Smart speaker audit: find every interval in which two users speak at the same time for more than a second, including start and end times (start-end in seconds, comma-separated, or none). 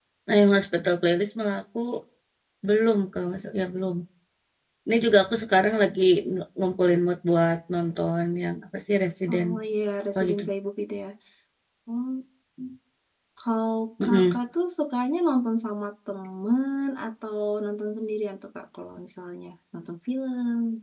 none